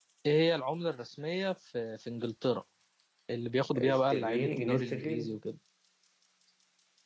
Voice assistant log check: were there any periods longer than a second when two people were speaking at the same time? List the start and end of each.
3.8-5.4

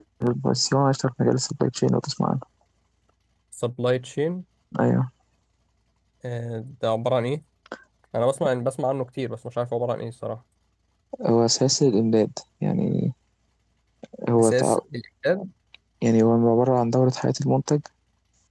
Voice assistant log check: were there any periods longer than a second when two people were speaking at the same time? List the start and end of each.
none

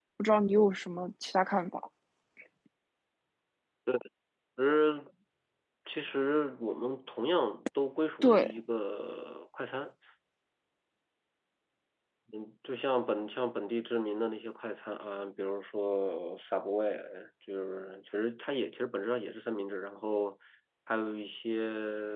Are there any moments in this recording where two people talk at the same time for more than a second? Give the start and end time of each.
none

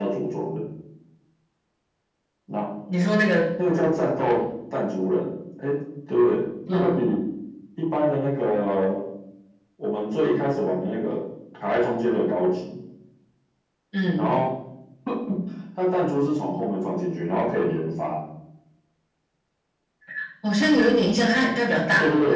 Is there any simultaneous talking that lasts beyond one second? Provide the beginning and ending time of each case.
none

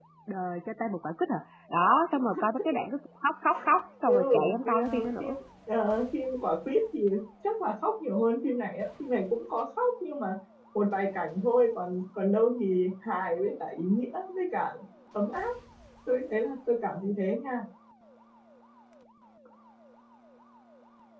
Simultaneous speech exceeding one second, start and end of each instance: 4.1-5.4

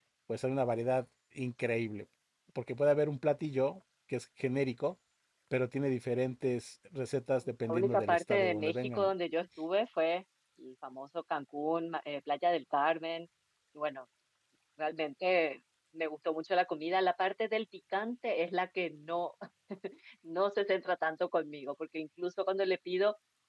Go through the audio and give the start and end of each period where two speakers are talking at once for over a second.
7.6-9.1

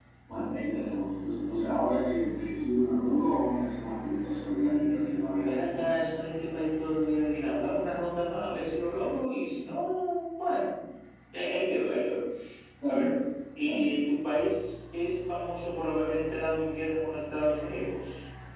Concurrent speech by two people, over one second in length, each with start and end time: 4.6-5.9

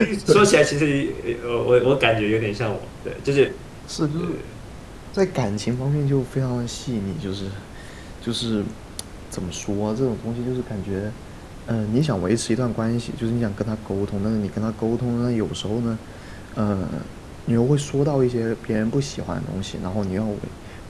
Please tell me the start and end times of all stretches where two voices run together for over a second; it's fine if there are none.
none

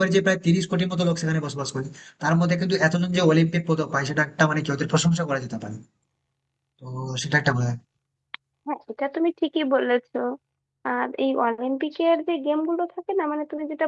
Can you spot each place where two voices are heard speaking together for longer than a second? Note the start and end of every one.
none

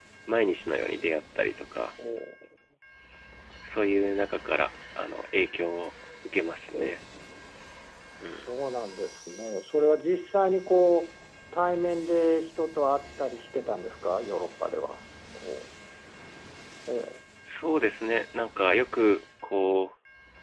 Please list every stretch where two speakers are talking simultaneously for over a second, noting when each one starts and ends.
none

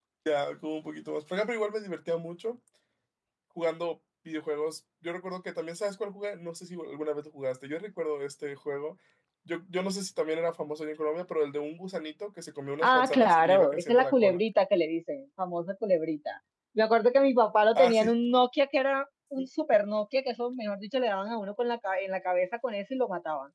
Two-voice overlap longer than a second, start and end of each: 12.8-14.4

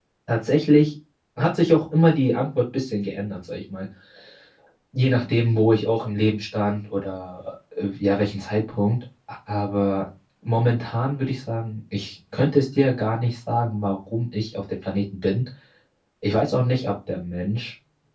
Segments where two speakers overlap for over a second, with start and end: none

